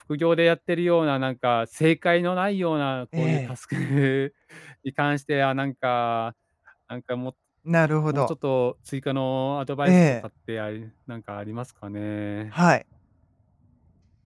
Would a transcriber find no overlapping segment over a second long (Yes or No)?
Yes